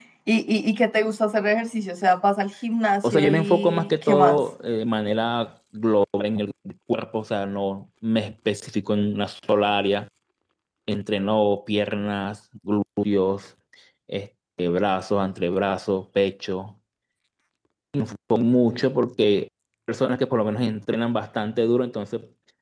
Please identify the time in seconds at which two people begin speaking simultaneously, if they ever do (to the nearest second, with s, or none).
3 s